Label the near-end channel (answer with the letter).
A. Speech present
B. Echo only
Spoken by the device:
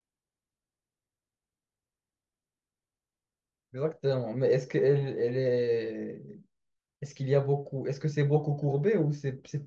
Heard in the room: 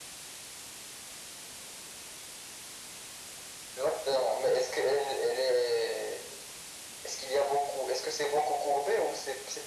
B